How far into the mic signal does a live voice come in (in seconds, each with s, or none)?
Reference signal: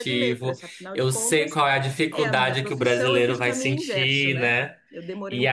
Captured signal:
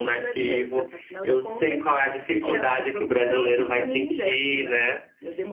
none